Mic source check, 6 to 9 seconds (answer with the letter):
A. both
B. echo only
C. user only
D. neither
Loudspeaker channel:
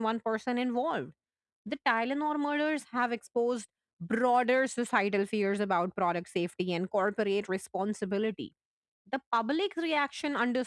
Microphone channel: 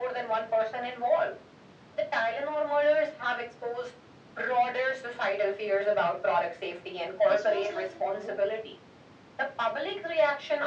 A